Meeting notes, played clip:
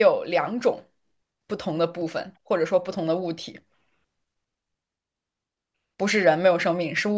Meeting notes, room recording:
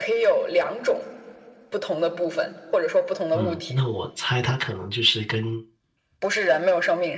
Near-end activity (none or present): present